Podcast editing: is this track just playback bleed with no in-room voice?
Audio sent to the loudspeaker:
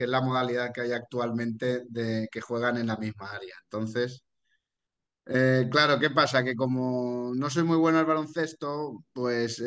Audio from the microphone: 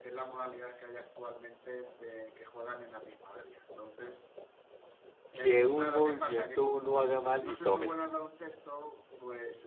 No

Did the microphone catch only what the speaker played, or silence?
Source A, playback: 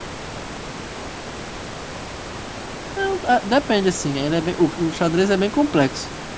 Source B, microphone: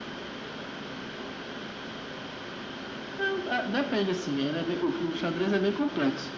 Yes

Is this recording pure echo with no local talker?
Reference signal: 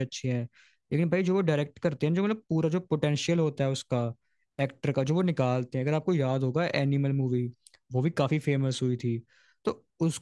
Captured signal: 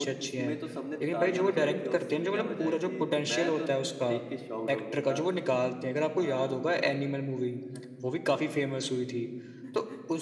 No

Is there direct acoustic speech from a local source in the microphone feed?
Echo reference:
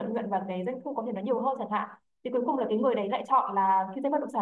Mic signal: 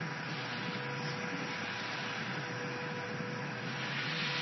No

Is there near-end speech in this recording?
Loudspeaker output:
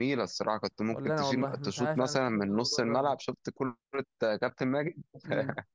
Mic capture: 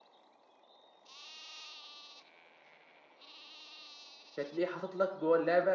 Yes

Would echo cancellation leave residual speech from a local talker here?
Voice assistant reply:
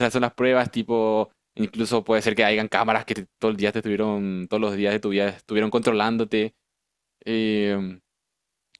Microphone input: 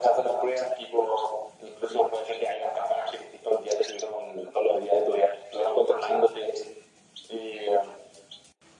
No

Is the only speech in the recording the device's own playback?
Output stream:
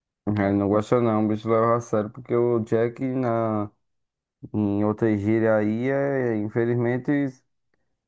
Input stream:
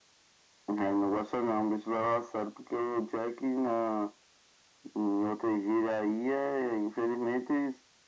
Yes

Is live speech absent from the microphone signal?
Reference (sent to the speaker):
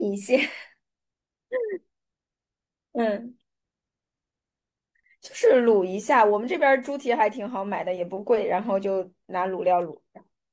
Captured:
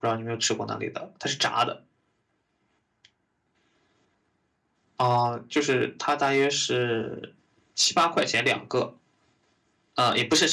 No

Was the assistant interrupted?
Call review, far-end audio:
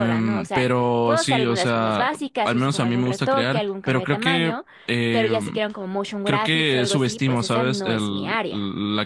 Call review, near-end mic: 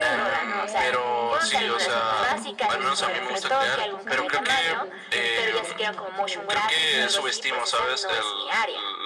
Yes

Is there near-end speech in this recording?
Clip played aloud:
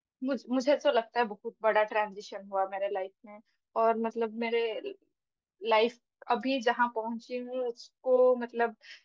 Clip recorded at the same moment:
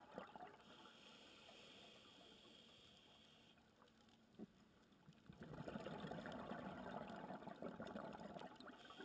No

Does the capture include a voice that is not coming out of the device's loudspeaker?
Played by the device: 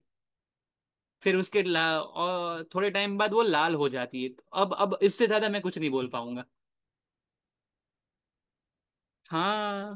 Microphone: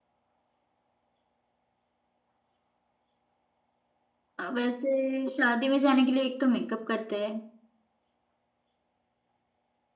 Yes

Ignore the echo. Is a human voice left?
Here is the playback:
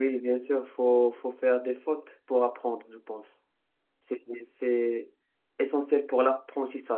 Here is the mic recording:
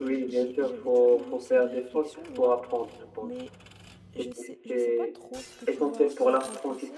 Yes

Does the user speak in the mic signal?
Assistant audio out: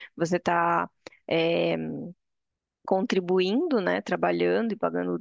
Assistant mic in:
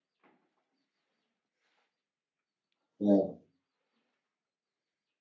Yes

